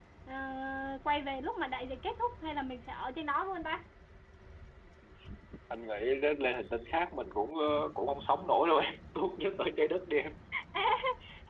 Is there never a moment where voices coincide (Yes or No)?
Yes